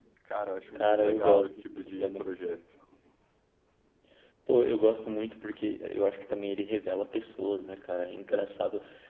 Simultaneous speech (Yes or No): Yes